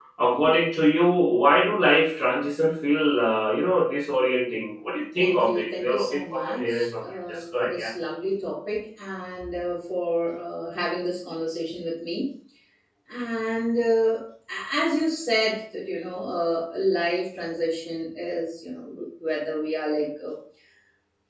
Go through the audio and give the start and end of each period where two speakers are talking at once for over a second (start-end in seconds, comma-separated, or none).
5.2-7.9